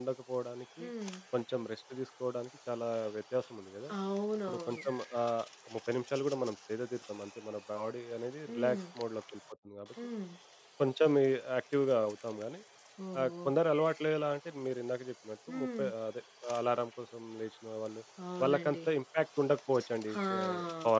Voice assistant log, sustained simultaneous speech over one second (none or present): none